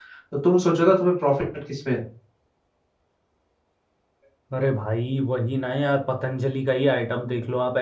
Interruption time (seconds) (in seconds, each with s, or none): none